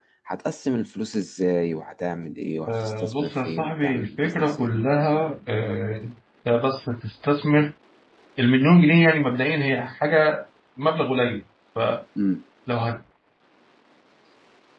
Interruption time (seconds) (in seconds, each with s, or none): 2.7 s